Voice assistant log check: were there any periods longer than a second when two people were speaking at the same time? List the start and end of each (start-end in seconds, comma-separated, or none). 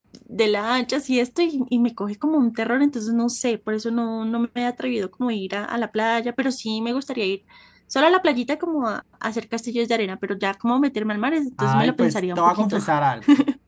11.6-12.8